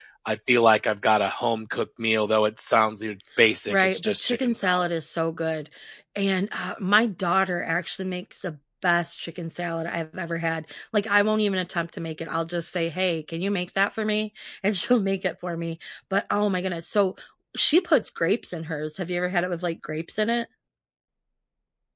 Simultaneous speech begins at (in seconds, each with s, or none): 3.7 s